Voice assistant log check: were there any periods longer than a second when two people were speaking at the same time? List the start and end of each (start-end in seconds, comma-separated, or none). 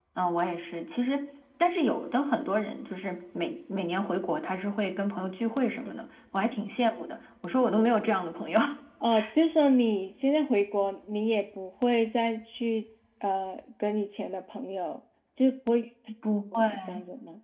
none